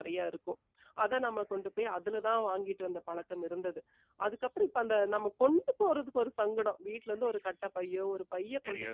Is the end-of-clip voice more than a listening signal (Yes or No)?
No